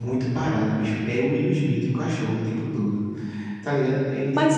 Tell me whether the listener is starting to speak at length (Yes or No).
Yes